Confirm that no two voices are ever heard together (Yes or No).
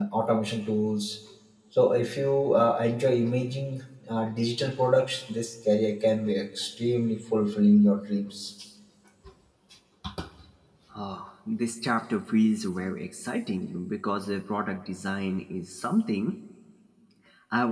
Yes